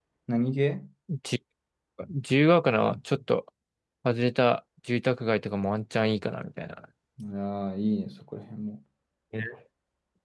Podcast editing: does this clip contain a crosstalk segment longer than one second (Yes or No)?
No